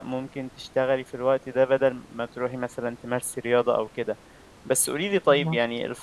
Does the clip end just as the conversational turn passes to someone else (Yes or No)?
No